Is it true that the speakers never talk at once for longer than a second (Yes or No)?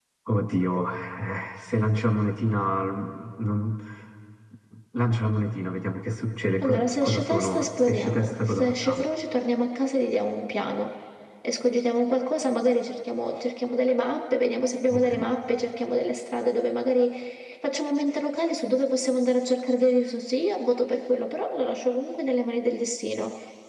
No